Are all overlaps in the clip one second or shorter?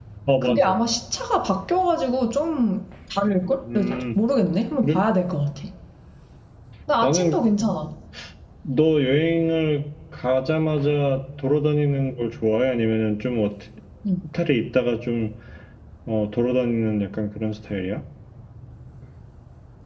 Yes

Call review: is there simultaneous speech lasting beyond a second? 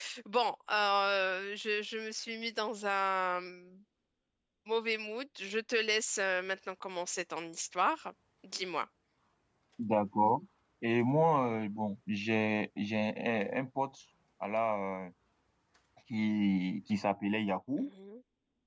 No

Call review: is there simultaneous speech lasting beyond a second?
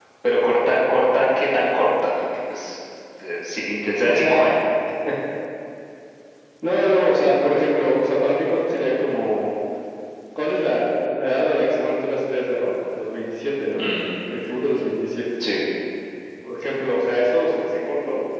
No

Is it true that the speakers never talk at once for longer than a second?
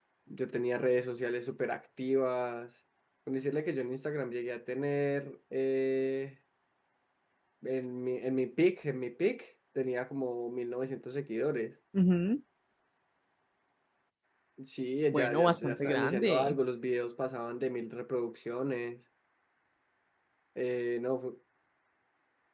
No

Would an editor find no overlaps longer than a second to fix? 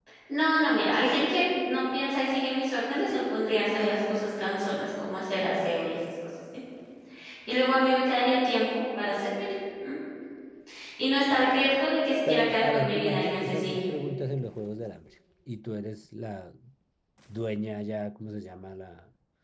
No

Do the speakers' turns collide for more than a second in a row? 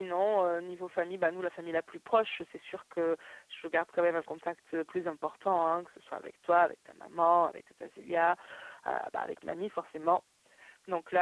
No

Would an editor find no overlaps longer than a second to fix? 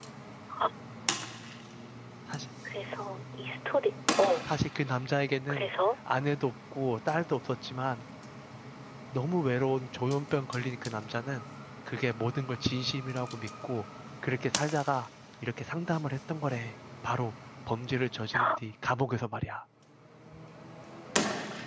Yes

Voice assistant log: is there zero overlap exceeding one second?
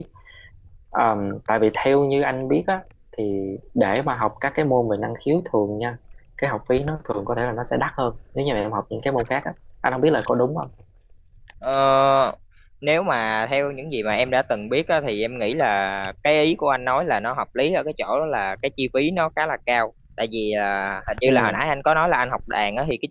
Yes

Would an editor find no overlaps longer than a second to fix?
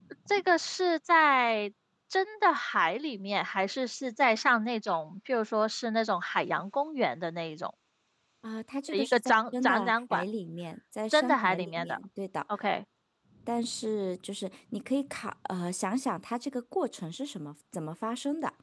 No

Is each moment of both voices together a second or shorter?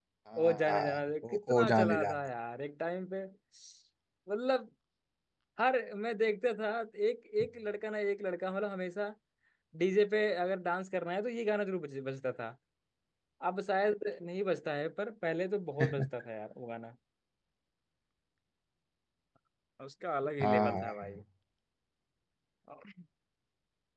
No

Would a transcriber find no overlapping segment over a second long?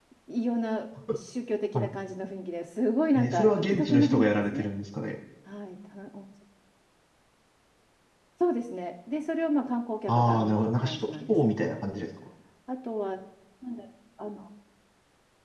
No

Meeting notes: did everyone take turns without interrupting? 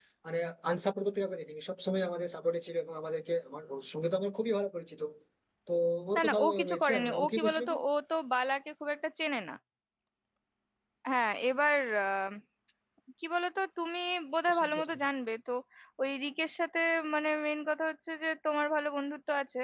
No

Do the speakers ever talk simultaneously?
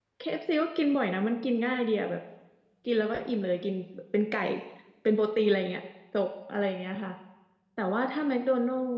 No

